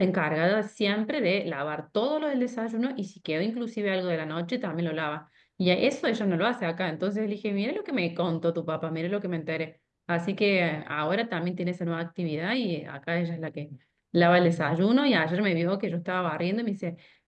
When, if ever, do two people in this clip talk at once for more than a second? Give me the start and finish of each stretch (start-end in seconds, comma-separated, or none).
none